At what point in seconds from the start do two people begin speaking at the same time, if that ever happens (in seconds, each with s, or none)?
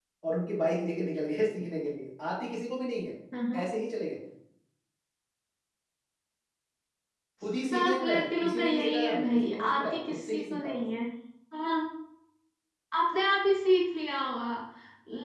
7.7 s